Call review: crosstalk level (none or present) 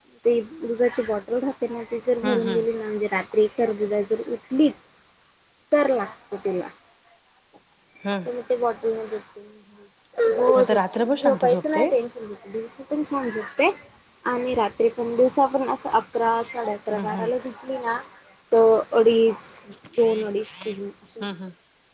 present